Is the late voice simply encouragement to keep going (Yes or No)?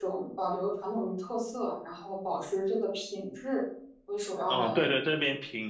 No